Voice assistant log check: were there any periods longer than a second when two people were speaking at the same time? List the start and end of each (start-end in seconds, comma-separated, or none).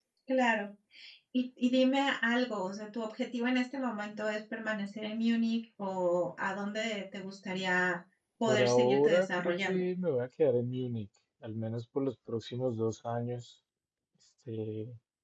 8.5-9.8